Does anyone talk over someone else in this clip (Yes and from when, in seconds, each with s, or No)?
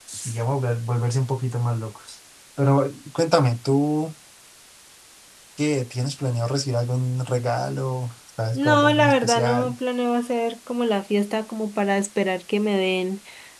Yes, from 8.5 s